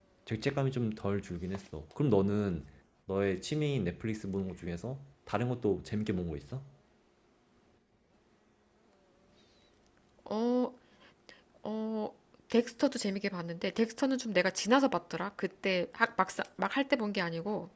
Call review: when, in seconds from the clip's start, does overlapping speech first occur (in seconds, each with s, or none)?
none